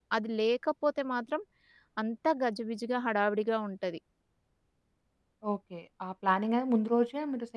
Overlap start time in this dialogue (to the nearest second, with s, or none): none